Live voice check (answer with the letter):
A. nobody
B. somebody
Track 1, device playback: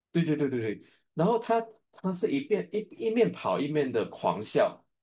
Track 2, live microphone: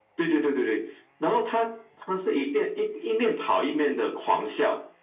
A